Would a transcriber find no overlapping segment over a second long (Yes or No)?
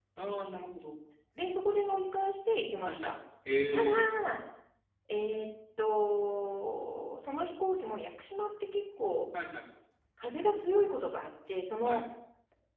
Yes